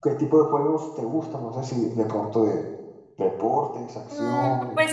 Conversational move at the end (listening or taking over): taking over